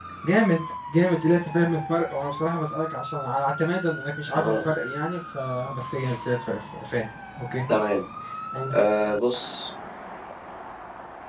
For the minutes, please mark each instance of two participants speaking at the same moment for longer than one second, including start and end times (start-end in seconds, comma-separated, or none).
none